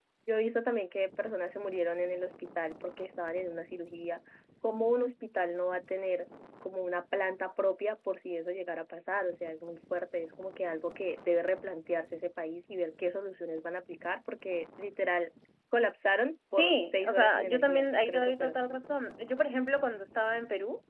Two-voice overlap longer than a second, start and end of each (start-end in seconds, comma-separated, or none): 16.6-18.6